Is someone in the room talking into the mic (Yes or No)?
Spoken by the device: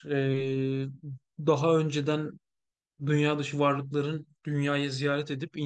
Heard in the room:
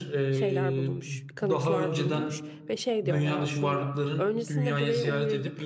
Yes